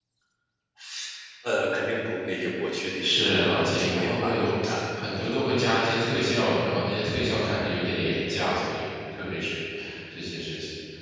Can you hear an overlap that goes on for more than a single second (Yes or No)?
Yes